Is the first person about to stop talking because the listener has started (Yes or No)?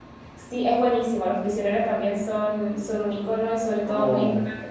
No